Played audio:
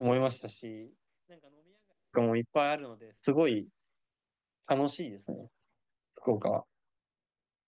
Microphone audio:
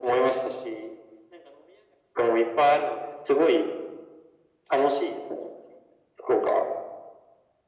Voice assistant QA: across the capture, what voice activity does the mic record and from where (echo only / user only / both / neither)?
echo only